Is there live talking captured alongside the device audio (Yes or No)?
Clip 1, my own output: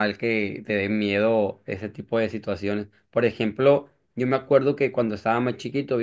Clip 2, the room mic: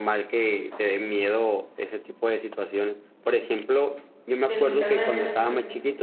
Yes